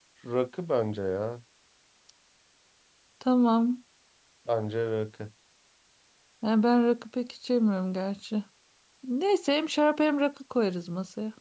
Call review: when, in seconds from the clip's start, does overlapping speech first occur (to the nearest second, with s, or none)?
none